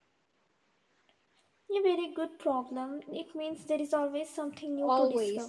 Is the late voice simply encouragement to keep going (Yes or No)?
No